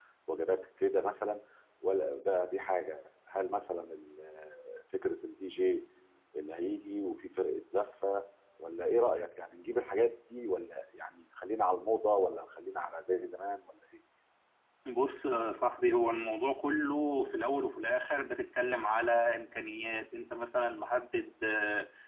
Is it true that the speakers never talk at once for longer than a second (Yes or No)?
Yes